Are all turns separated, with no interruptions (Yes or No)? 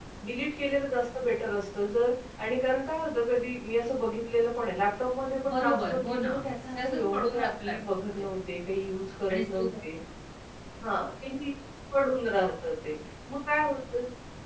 No